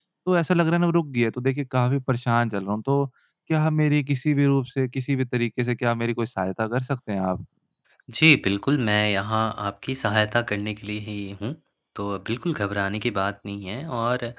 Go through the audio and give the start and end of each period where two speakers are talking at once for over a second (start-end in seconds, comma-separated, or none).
none